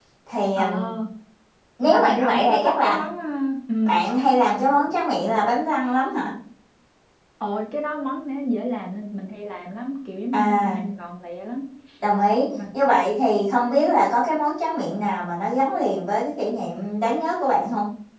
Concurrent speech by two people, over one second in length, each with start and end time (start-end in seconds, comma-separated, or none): 1.8-3.0